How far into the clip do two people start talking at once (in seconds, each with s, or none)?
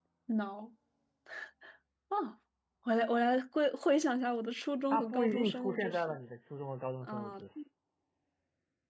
4.9 s